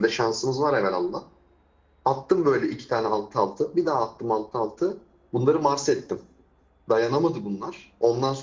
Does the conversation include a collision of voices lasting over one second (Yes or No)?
No